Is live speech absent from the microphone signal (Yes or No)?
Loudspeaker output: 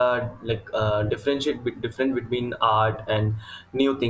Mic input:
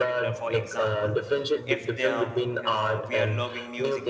No